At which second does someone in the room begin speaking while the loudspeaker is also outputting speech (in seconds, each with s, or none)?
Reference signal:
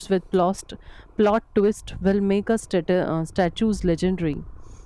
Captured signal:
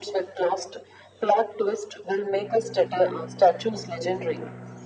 none